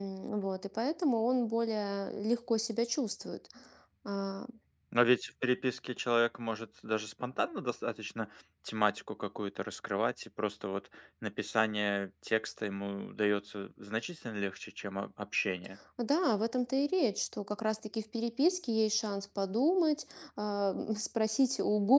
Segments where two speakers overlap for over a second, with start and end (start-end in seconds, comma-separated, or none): none